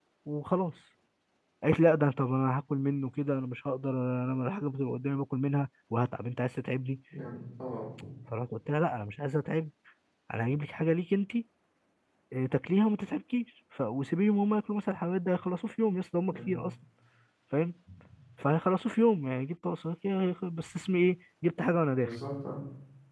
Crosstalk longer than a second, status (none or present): none